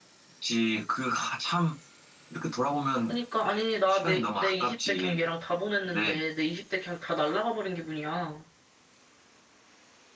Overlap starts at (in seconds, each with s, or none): 3.9 s